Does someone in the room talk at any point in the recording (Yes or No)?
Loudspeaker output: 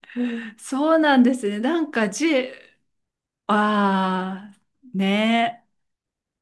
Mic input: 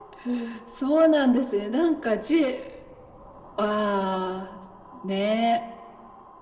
No